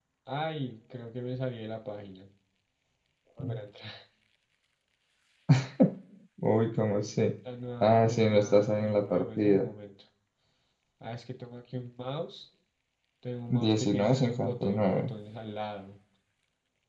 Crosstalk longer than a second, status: present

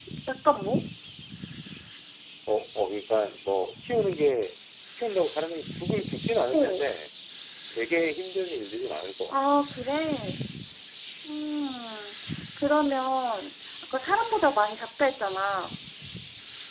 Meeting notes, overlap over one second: none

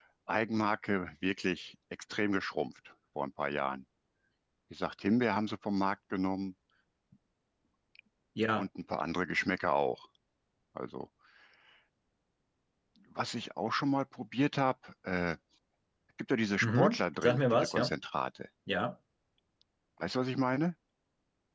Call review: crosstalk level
present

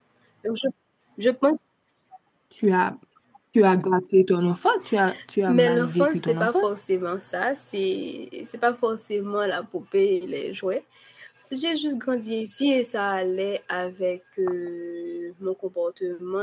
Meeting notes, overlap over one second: present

